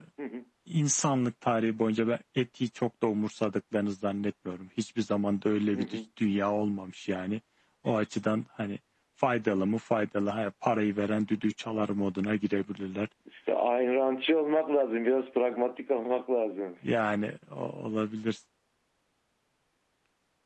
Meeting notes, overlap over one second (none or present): none